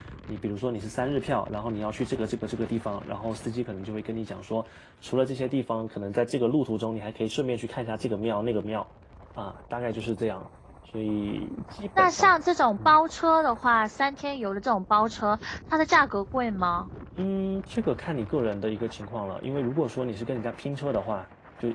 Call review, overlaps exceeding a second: none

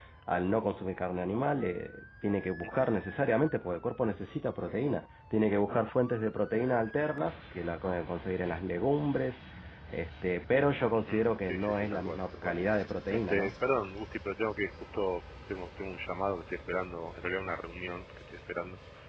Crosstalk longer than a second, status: present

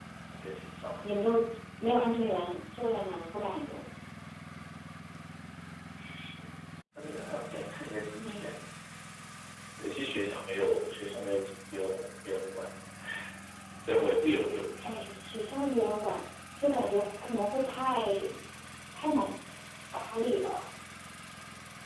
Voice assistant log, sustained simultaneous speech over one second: none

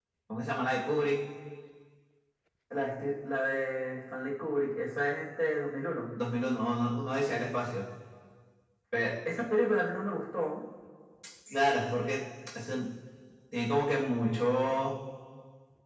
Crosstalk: none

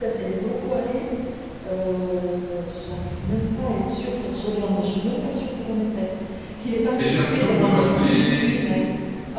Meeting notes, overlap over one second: present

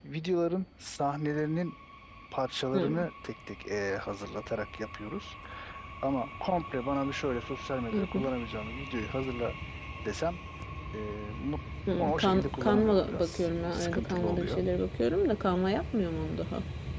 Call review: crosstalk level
present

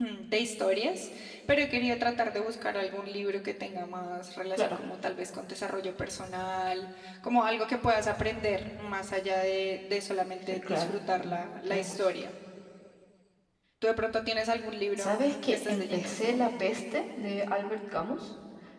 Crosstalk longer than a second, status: present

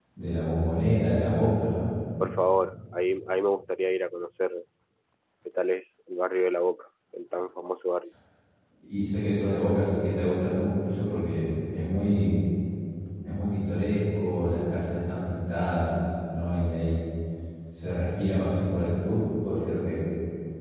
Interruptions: none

